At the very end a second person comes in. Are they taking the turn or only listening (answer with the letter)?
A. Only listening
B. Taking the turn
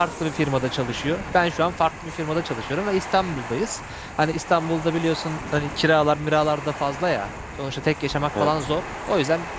A